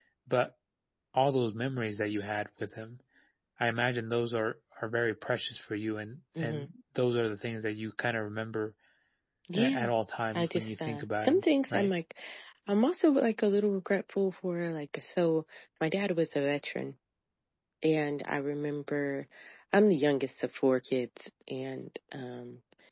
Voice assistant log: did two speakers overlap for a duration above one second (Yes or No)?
Yes